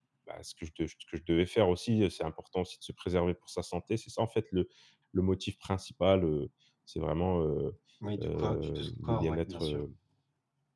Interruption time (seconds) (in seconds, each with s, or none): 8.2 s